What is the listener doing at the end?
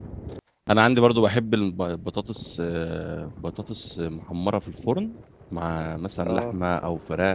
listening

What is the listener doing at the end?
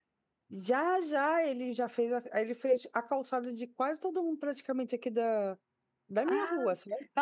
taking over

